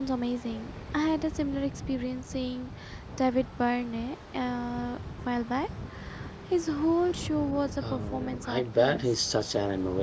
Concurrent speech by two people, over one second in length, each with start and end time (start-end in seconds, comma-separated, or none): 7.8-9.0